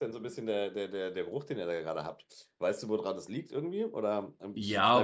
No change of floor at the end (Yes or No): No